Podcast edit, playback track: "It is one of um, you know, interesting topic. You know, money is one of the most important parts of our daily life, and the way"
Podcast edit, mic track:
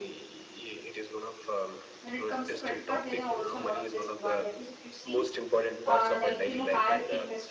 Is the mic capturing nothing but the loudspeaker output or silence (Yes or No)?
No